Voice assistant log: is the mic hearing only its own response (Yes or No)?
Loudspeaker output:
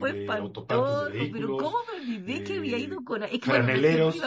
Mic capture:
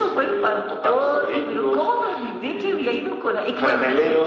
Yes